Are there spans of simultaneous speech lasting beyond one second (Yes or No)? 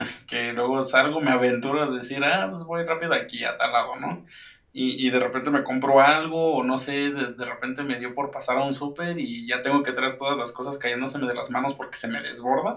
No